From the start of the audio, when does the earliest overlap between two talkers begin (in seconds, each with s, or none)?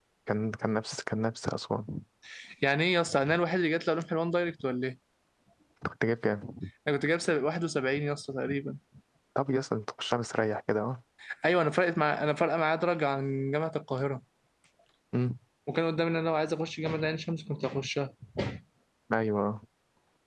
none